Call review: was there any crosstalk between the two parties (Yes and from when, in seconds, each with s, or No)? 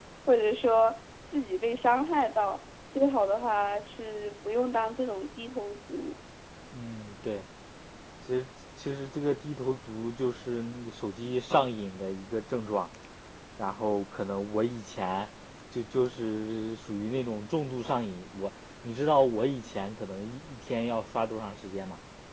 No